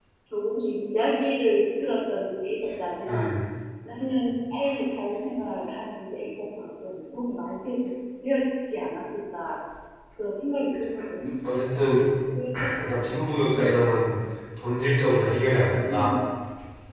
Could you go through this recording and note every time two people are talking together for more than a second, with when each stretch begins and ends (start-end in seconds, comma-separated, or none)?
none